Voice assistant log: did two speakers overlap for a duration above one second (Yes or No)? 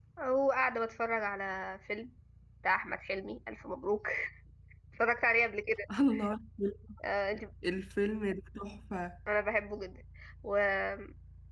No